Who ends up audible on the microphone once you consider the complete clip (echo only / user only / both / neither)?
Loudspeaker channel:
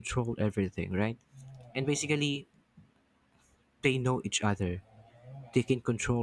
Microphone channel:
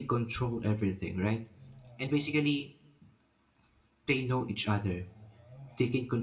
echo only